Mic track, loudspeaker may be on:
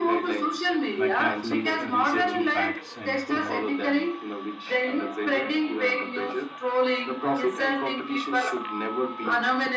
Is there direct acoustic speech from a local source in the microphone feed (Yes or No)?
Yes